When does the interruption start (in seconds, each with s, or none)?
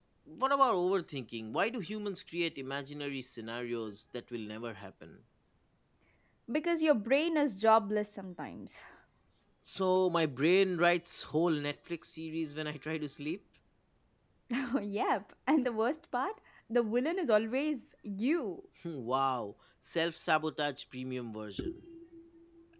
none